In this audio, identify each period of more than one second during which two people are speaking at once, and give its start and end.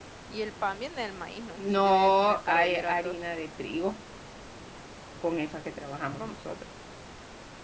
1.6-3.2

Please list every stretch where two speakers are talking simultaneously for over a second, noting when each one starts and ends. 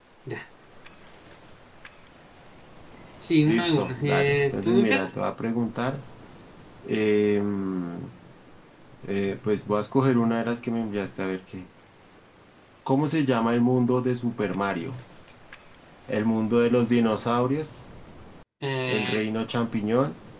3.4-5.1

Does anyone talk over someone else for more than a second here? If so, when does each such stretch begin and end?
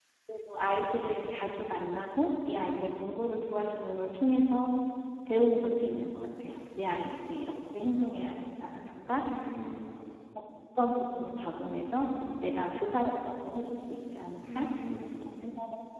none

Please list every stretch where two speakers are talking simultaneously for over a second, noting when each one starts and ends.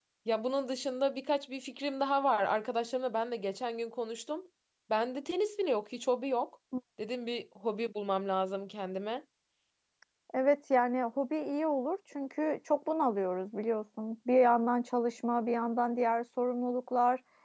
none

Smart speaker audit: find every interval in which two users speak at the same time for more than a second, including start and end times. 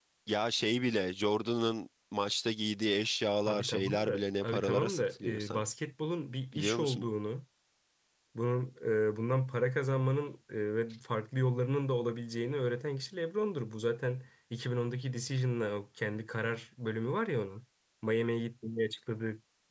3.5-5.6

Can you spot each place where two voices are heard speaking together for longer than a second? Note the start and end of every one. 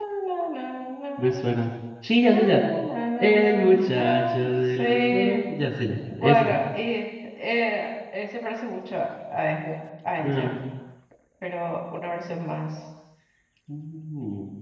3.2-5.4

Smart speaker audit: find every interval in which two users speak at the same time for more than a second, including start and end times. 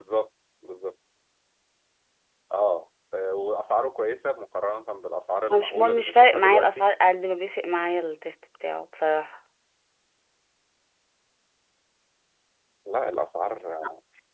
5.5-6.9

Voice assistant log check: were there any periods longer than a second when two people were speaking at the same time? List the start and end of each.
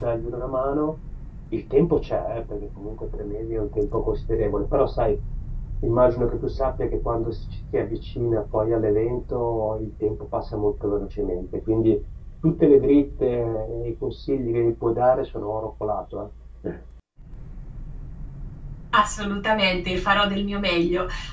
none

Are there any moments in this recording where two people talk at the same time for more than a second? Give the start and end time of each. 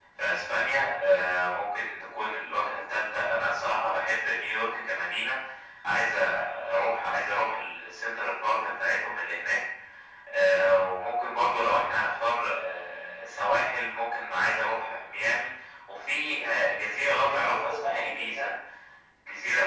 17.1-18.5

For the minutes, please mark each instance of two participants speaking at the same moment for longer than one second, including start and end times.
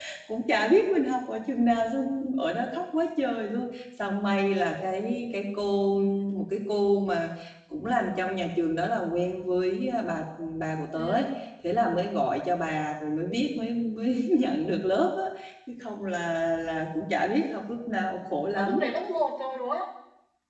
none

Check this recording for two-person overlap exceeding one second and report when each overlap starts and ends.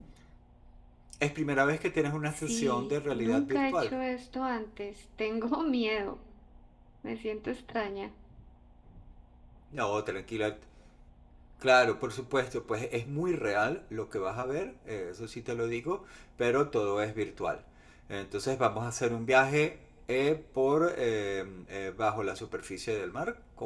2.3-4.0

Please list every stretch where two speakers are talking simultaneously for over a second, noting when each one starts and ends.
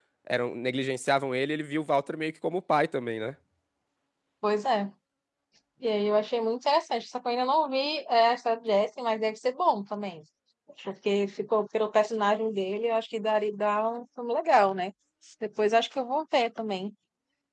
none

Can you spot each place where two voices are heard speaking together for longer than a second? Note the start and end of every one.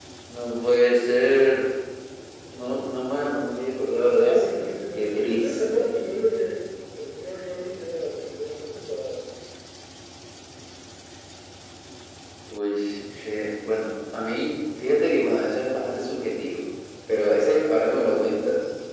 4.0-6.0

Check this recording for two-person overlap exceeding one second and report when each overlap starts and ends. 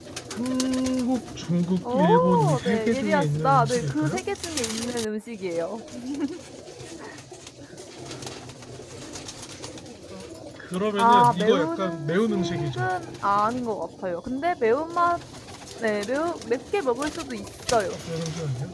1.9-4.2, 11.0-12.9

